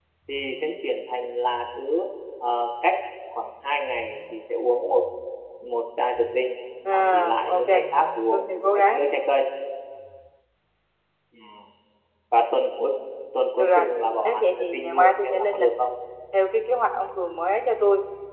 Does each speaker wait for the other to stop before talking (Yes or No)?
No